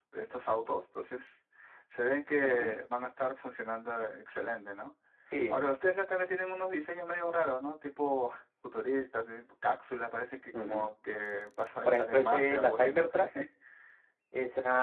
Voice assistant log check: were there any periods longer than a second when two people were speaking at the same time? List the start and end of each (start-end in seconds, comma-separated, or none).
11.8-13.1